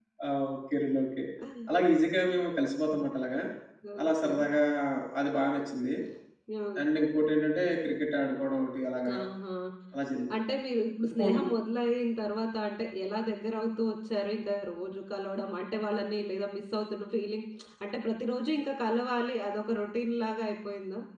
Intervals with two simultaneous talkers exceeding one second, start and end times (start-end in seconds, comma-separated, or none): none